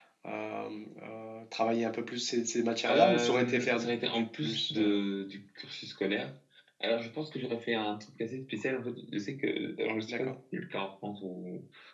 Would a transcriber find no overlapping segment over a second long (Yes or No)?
No